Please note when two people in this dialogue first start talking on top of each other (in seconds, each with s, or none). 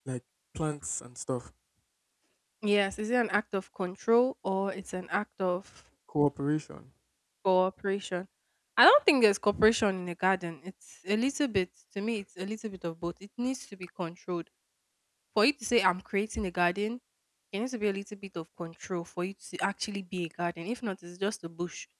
none